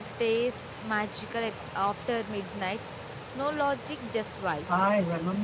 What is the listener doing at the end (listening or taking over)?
taking over